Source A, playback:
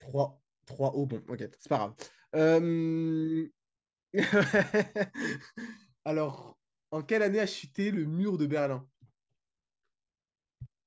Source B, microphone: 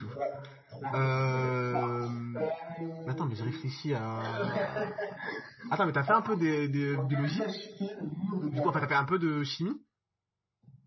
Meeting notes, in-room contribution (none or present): present